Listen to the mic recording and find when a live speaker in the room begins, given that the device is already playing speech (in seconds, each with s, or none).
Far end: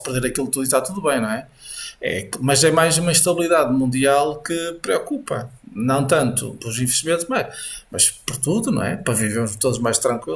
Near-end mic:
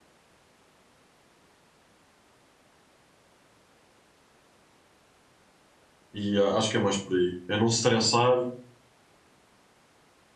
6.1 s